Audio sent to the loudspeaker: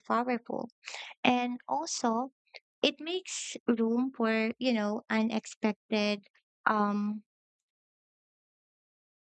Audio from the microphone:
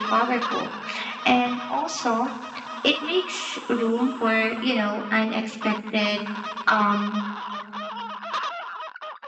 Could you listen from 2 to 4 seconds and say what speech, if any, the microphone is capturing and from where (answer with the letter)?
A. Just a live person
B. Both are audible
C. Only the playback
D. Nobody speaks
C